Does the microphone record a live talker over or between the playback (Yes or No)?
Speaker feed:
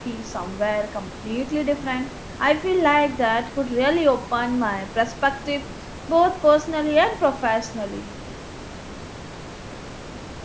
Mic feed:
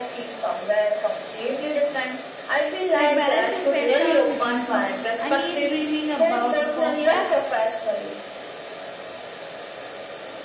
Yes